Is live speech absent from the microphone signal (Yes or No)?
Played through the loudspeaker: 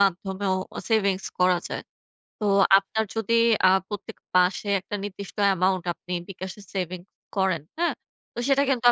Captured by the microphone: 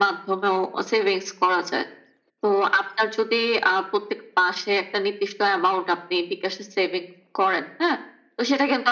Yes